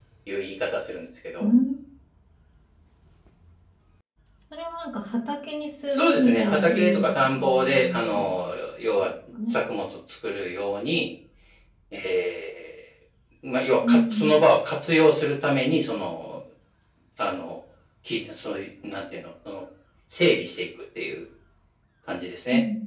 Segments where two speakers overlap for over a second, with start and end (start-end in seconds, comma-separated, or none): 5.9-8.3